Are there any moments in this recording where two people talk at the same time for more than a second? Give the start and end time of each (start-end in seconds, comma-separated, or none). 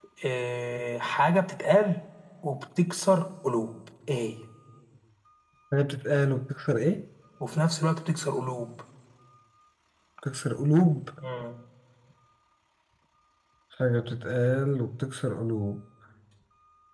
none